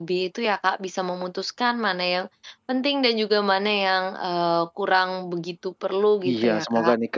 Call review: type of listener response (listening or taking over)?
taking over